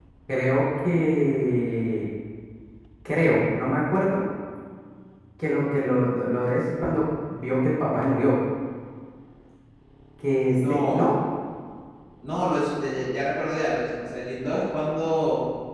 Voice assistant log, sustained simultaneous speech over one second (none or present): none